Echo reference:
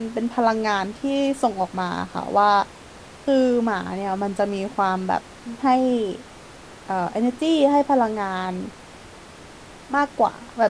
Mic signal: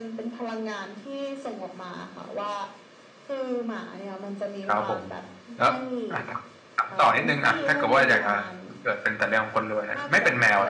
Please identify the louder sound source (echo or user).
user